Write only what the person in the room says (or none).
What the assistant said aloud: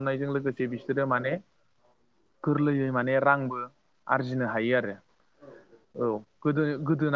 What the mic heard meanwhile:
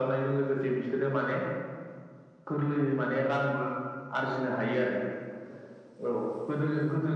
none